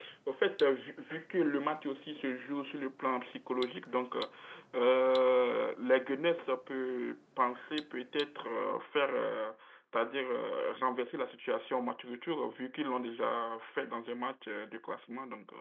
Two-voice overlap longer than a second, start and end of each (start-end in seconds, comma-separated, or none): none